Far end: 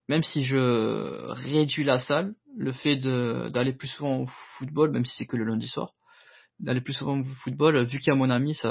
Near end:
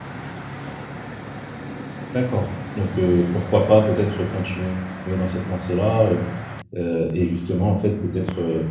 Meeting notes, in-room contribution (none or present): present